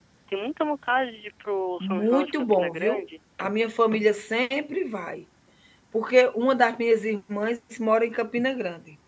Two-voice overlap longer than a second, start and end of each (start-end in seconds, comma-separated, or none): 1.8-3.0